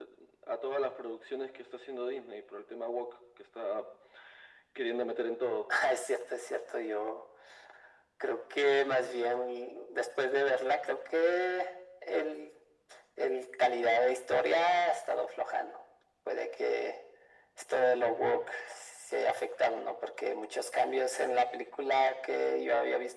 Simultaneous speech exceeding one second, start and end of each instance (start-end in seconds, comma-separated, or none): none